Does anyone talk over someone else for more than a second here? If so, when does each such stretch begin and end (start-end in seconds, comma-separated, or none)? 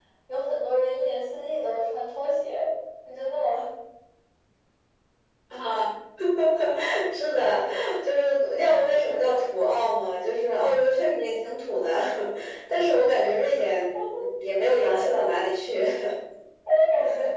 none